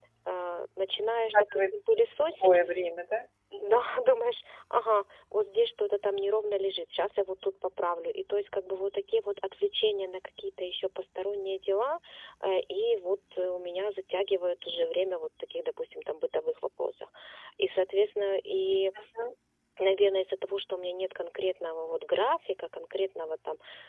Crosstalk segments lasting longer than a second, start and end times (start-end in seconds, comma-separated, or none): 1.3-2.6